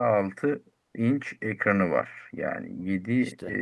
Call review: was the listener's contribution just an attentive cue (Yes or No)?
Yes